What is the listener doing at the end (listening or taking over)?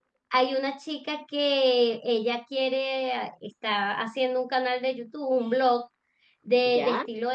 listening